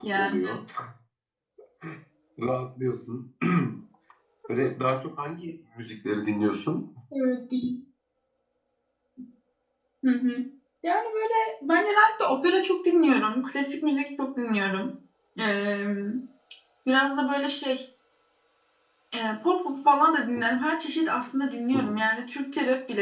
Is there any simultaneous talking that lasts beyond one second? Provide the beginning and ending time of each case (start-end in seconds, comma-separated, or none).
none